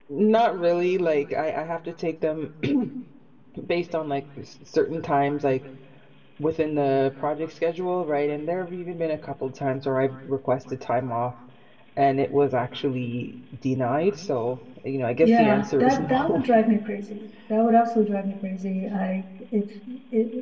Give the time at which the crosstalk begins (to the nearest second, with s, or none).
15 s